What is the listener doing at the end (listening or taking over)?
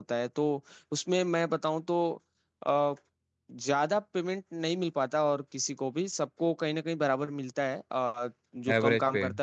listening